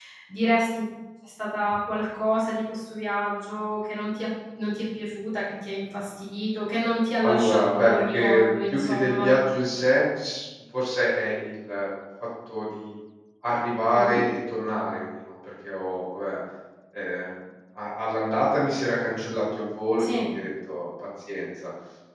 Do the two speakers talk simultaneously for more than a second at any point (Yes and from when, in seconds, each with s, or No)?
Yes, from 7.2 s